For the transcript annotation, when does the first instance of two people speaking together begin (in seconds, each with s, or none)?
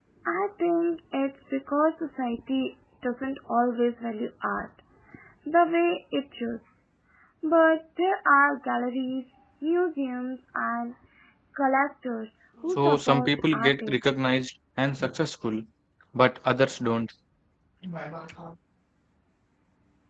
12.8 s